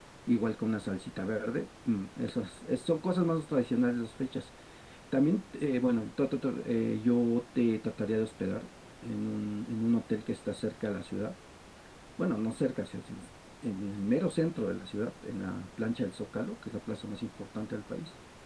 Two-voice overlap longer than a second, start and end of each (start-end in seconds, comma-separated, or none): none